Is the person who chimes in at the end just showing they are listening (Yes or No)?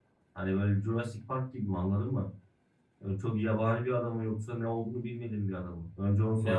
No